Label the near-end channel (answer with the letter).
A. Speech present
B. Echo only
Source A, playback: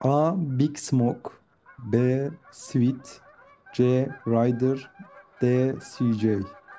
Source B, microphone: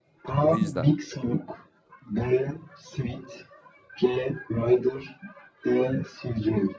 A